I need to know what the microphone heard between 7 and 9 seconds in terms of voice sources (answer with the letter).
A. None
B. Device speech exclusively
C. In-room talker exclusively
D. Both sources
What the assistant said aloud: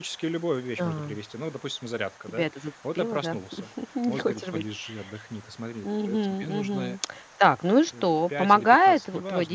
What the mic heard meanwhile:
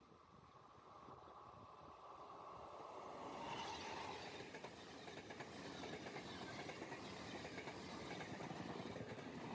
A